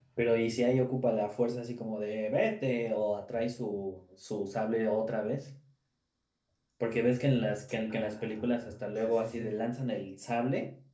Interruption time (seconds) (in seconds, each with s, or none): 7.9 s